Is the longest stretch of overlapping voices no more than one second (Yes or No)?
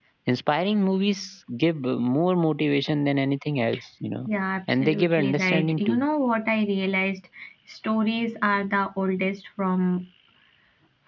No